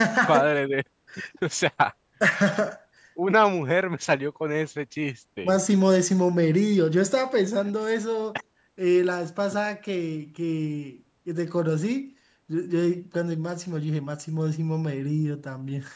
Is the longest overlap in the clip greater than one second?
No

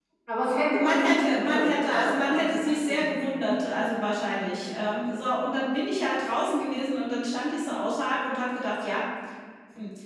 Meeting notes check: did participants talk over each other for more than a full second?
Yes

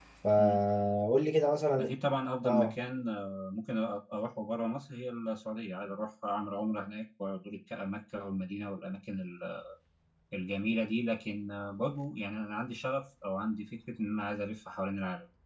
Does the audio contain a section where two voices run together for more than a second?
No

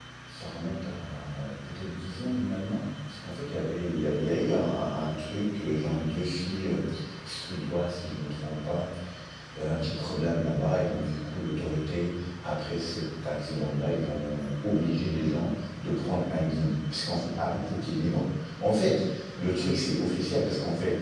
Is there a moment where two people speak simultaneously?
No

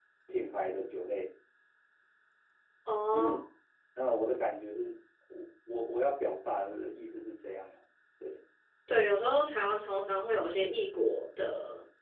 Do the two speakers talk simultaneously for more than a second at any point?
No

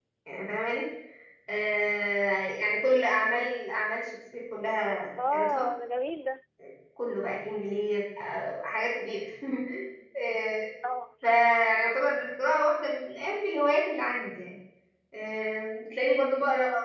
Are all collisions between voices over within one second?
Yes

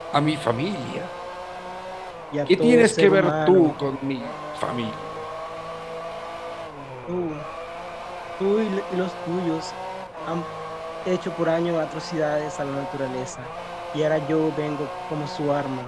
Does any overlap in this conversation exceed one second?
Yes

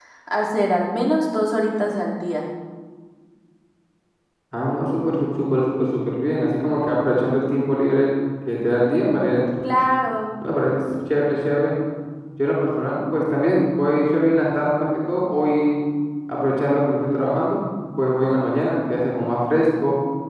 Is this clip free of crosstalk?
Yes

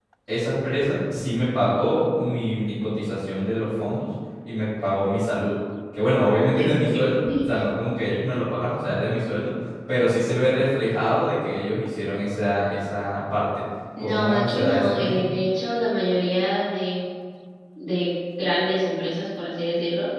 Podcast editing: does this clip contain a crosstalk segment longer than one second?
Yes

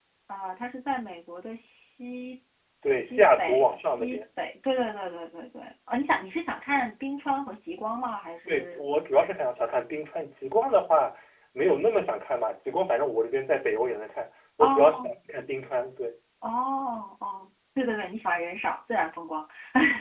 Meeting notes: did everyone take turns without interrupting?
No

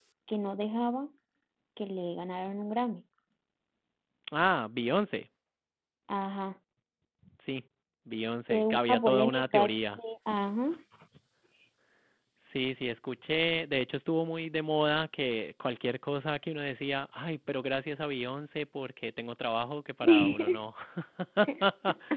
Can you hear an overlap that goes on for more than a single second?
Yes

